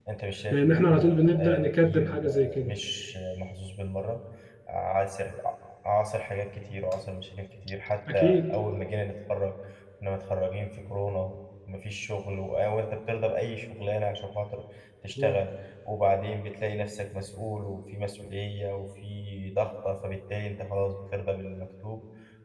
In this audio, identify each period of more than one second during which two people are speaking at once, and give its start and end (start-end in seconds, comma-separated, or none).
0.5-2.7